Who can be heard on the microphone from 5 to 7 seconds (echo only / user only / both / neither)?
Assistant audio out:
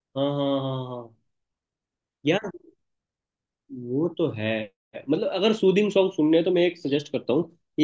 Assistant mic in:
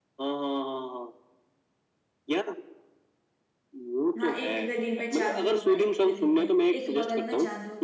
both